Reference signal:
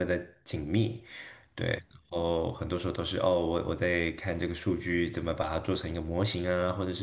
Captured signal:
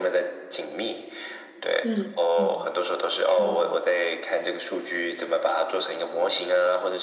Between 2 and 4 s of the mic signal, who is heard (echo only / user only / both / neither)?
both